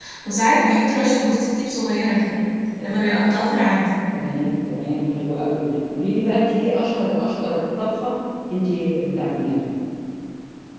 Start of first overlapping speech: none

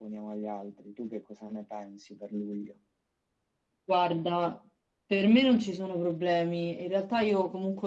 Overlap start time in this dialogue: none

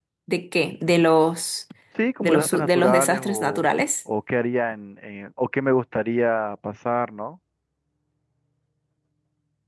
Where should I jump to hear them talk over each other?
2.2 s

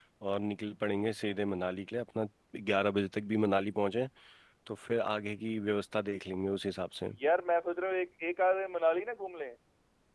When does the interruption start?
none

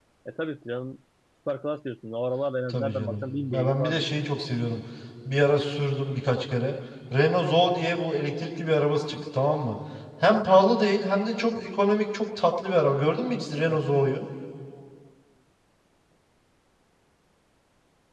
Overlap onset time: 2.7 s

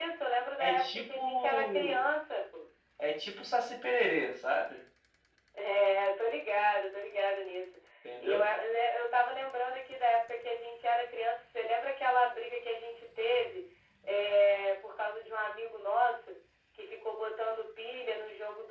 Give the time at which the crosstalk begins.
0.6 s

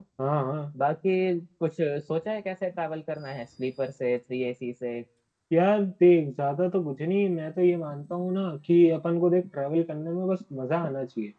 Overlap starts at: none

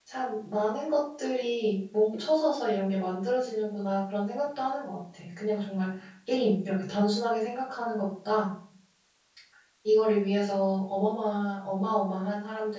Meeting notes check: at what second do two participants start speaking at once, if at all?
none

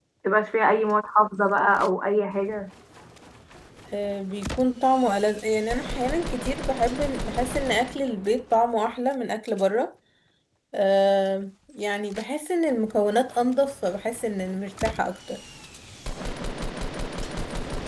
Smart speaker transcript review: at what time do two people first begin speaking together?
none

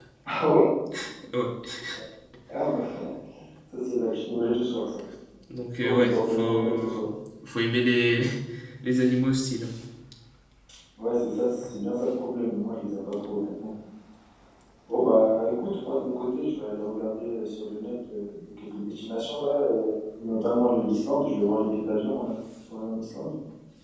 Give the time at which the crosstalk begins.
5.8 s

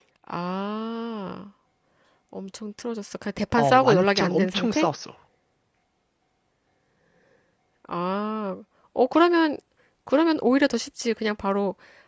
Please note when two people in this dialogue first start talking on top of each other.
3.6 s

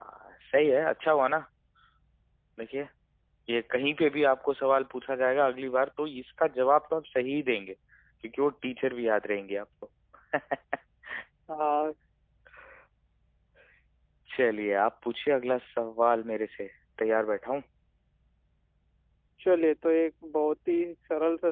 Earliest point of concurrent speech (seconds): none

